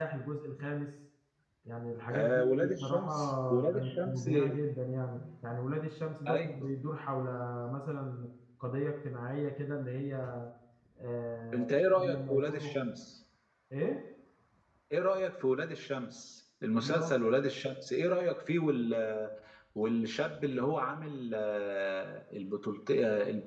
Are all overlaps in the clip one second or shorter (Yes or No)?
No